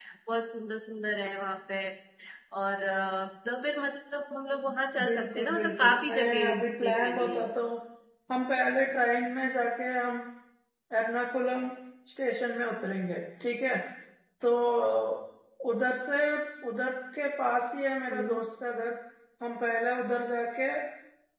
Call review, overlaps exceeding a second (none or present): present